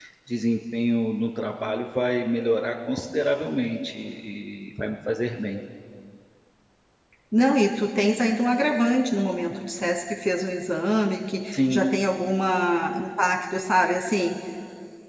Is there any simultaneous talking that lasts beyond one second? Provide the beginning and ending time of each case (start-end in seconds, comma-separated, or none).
none